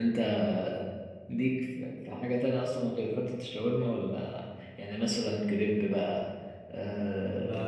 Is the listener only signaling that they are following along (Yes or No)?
No